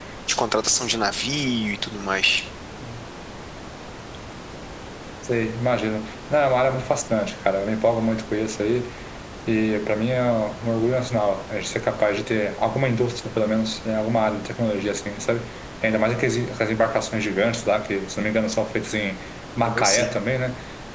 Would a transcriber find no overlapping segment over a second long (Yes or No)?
Yes